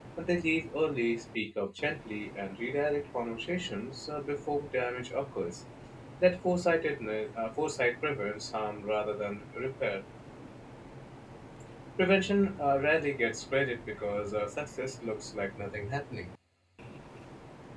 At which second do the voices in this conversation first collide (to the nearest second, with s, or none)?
none